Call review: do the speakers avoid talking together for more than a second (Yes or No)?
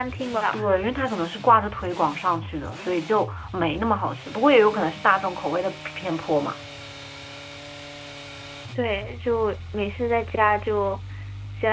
Yes